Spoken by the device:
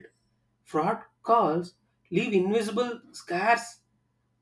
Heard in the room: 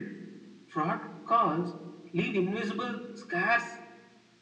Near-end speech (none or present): none